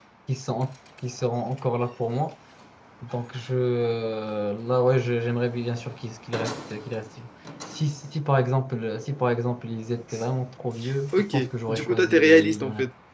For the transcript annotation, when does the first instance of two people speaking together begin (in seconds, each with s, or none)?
11.1 s